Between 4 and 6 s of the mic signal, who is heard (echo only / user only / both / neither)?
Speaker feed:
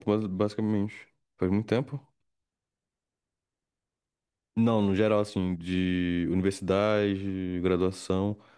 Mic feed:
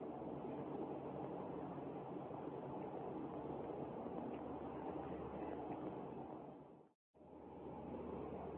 neither